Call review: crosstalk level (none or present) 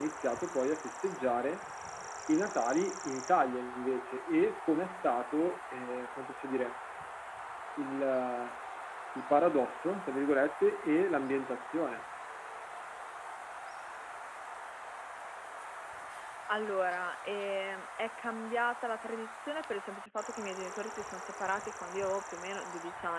none